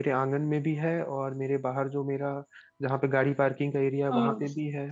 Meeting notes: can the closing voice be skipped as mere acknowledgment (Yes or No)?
Yes